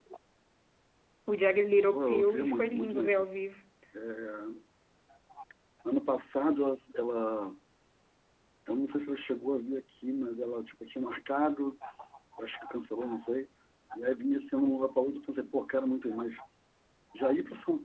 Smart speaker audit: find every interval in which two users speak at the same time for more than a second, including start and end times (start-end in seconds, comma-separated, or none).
1.9-3.2